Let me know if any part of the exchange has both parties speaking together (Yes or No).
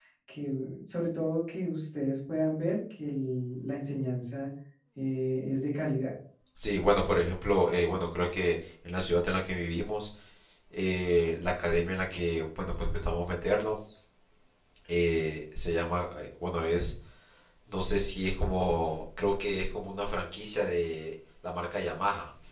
No